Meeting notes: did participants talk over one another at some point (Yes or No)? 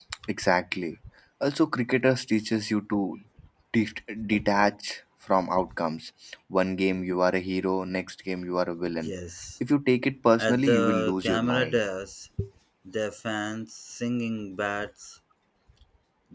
Yes